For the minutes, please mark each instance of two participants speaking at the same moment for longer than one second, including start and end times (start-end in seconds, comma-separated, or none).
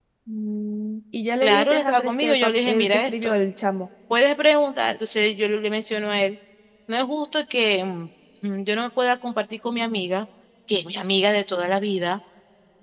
1.4-3.3